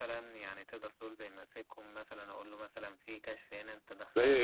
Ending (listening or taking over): taking over